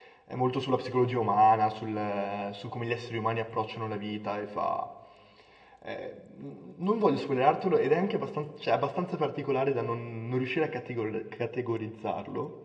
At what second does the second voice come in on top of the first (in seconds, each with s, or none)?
none